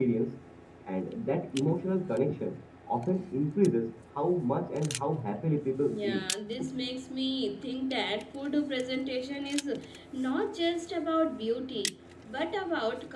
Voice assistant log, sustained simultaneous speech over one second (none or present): none